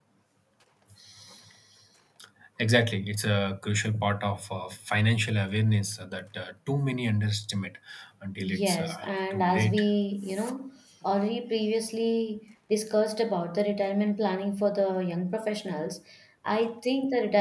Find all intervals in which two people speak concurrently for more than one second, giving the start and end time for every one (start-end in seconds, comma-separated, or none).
8.4-9.8